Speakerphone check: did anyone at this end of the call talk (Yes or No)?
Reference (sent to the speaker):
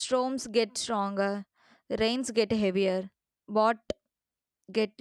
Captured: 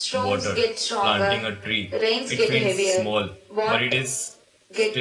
Yes